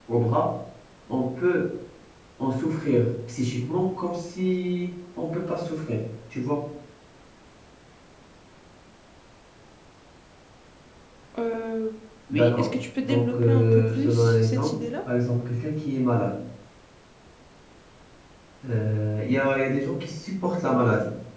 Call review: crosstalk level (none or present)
present